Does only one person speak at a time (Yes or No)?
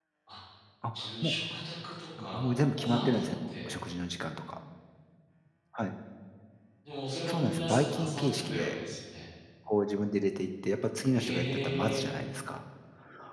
No